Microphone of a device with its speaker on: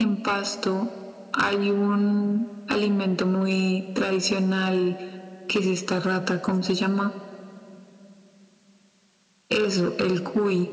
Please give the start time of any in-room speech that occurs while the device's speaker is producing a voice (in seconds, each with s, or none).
none